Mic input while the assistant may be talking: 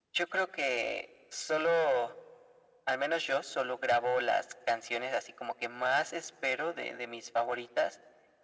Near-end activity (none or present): none